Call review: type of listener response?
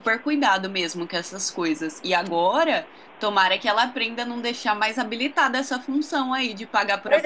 taking over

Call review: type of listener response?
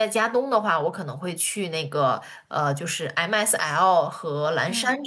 listening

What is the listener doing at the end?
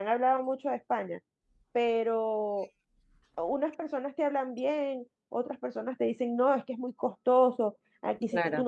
listening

